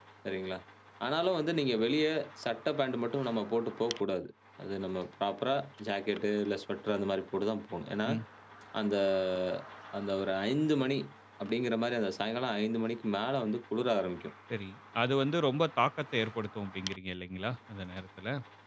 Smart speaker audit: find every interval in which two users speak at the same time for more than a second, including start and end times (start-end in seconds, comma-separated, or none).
none